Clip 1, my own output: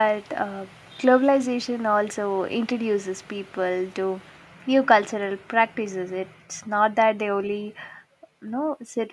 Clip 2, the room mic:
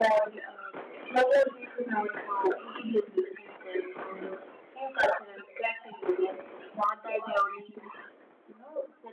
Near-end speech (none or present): none